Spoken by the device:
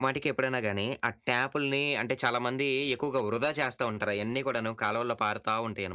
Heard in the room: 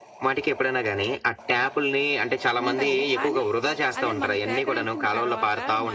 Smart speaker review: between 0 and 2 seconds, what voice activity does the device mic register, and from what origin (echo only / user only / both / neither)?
echo only